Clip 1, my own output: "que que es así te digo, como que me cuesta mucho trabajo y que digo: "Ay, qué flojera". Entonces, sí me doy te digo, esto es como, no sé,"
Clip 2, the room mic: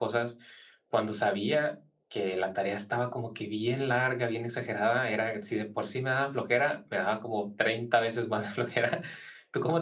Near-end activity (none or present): present